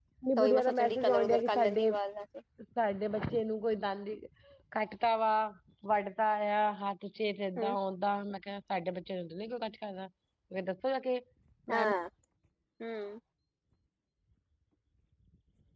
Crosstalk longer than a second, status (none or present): present